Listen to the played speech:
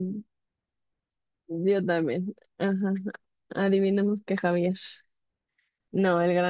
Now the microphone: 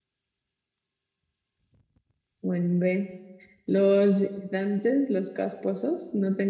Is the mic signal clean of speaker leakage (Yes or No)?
Yes